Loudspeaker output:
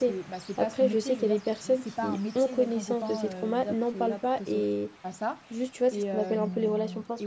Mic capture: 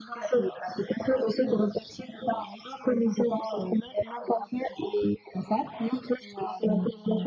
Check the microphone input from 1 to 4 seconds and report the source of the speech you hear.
echo only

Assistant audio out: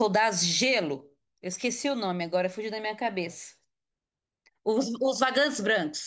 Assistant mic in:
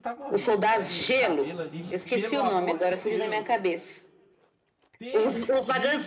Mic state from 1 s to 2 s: both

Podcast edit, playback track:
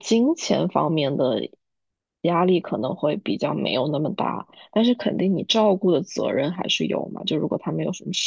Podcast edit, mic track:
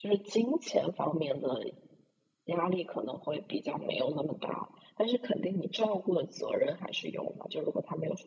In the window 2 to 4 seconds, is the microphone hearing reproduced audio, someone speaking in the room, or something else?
echo only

